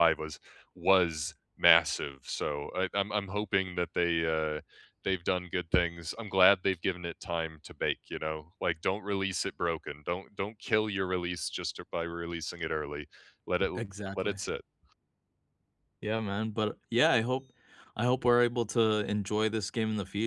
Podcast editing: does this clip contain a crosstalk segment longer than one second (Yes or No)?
No